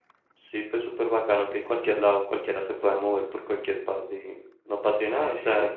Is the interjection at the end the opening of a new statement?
No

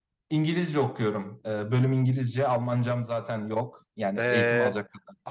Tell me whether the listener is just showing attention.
No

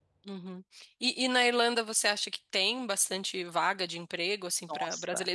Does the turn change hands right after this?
No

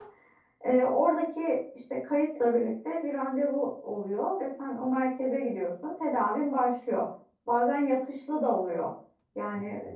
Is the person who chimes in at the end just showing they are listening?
Yes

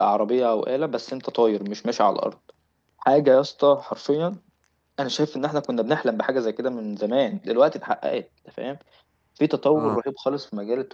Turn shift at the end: No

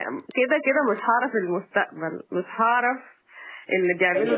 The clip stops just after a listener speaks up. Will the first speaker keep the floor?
Yes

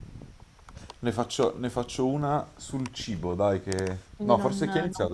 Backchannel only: No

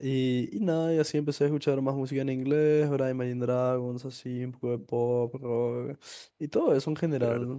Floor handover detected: No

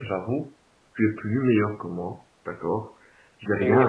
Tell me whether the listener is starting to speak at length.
Yes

